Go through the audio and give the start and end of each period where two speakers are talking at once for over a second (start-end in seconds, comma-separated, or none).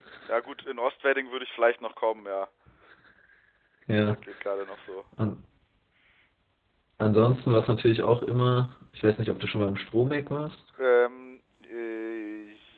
none